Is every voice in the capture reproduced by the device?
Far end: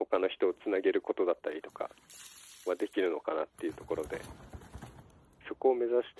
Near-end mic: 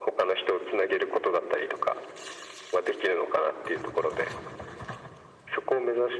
Yes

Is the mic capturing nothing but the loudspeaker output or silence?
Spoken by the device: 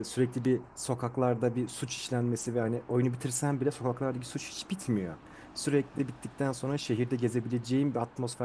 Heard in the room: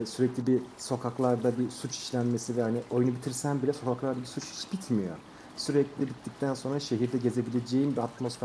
Yes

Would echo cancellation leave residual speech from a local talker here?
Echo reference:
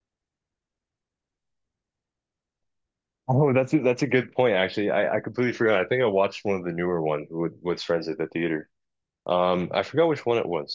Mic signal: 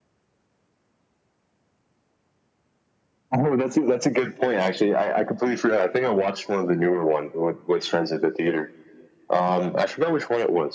No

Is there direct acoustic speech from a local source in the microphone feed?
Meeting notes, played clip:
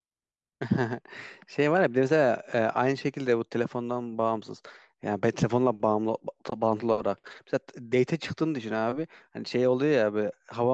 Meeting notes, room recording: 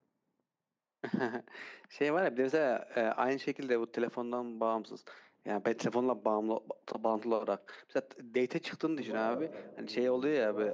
Yes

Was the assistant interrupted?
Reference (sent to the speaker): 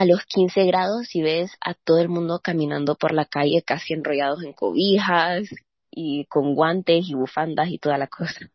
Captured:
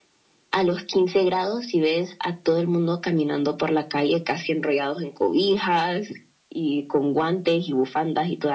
No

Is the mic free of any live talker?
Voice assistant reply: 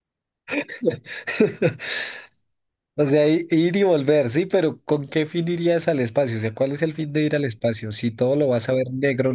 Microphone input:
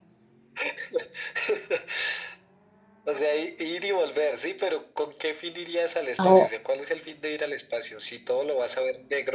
No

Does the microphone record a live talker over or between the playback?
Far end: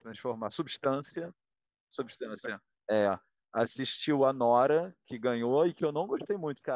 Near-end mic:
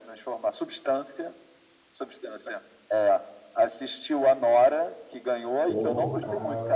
Yes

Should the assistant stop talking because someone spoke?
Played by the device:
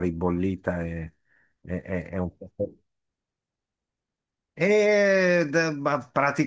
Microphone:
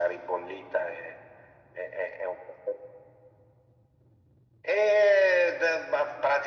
No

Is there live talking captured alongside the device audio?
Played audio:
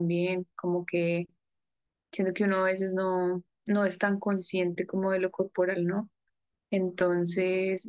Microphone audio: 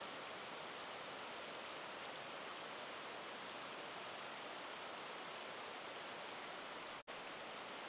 No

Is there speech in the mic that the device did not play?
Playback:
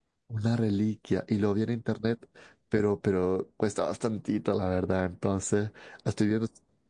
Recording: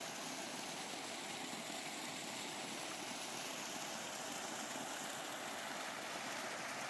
No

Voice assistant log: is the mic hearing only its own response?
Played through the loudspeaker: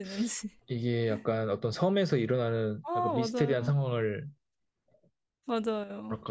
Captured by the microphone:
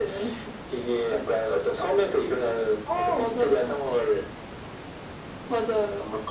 Yes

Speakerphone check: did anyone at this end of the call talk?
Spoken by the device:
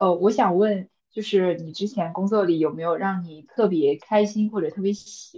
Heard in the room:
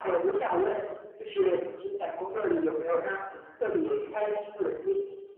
No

